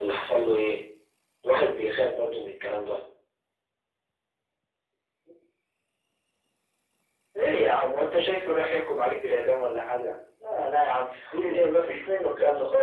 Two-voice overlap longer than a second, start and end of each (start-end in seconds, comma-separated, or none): none